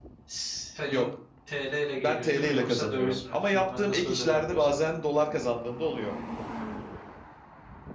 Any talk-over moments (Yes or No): Yes